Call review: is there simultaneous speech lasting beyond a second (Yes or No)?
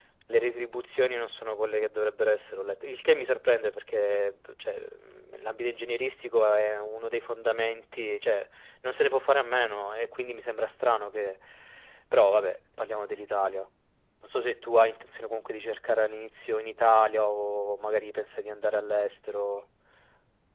No